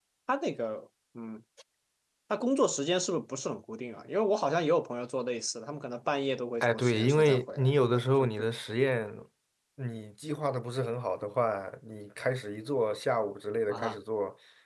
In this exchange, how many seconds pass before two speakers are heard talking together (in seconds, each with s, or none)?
6.6 s